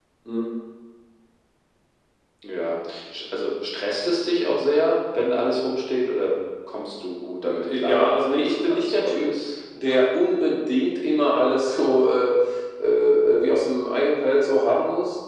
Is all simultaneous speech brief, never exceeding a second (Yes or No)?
No